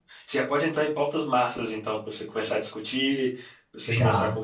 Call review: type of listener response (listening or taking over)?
listening